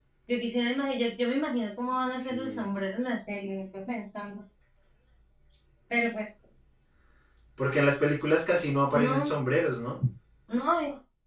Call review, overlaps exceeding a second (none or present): none